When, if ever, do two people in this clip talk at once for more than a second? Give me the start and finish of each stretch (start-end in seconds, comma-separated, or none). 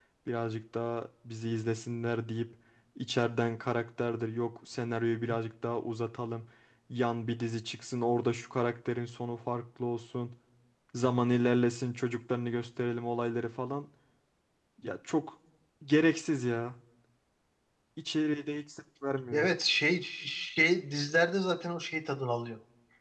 none